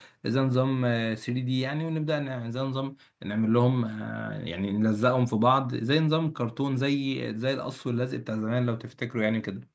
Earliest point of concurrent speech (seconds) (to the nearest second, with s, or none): none